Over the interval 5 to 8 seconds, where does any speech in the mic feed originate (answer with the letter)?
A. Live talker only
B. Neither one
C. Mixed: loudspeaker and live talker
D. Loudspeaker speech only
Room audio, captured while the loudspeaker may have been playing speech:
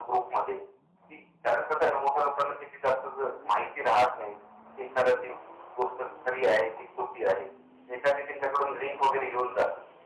D